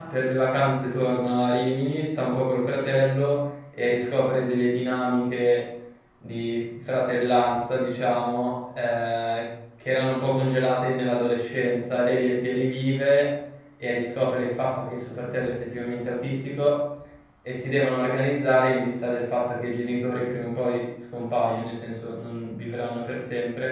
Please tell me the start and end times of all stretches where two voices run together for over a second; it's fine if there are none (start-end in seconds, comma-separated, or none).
none